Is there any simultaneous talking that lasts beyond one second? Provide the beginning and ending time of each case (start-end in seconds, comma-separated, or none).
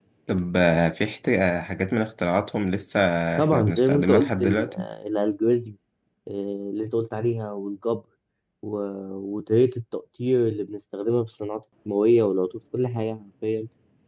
3.4-4.7